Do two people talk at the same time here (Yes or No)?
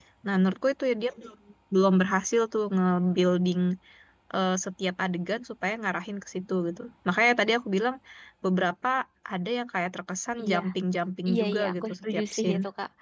Yes